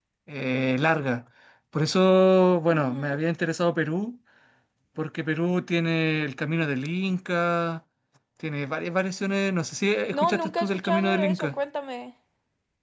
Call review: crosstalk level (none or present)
present